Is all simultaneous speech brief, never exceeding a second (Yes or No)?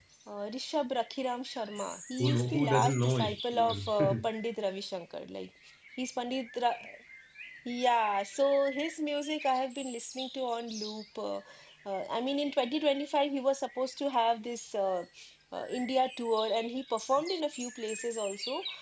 No